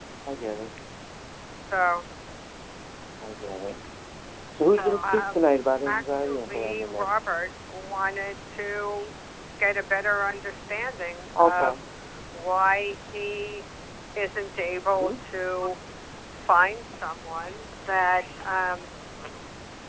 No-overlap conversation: No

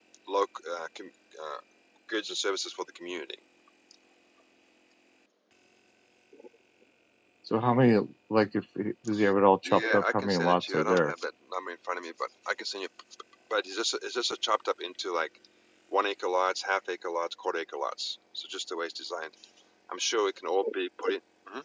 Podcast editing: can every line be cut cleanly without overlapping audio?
No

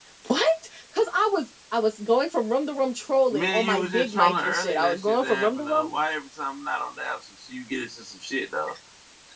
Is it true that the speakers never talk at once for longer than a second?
No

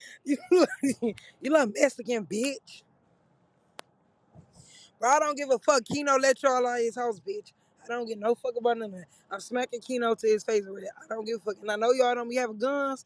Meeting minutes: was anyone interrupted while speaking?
No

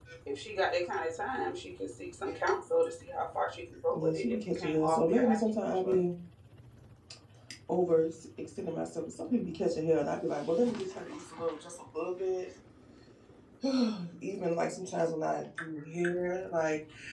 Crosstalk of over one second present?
Yes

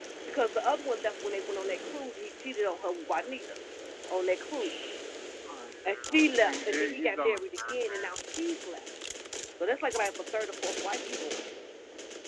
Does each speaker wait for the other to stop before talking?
No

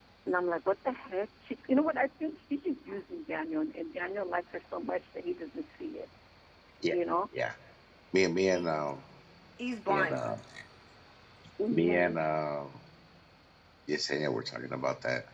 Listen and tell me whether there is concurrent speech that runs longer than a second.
No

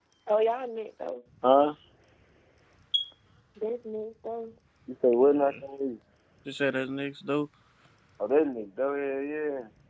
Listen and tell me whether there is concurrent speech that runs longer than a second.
No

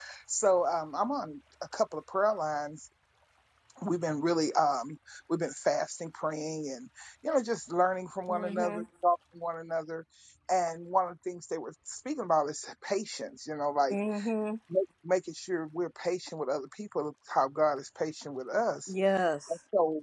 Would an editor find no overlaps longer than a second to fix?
Yes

